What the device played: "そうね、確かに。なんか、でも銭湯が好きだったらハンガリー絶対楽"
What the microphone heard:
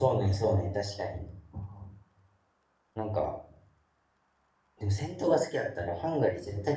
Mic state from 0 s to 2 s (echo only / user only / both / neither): echo only